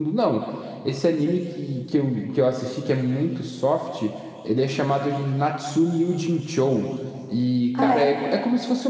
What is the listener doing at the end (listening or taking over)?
listening